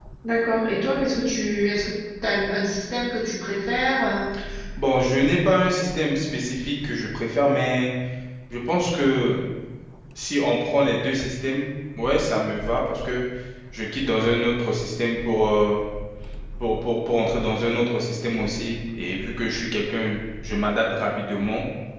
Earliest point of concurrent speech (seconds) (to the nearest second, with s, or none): none